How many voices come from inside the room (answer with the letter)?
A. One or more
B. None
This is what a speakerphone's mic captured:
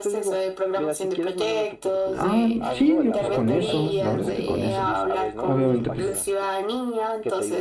A